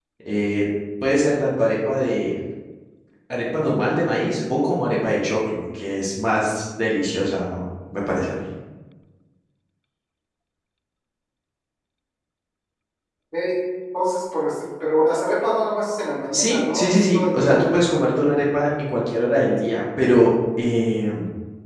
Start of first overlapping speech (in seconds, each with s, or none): 16.3 s